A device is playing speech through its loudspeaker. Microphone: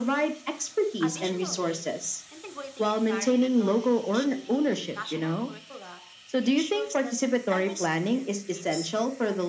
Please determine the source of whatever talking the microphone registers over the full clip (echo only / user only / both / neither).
both